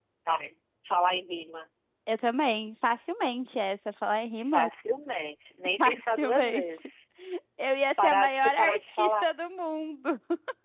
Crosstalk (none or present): present